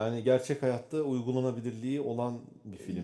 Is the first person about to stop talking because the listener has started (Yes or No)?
No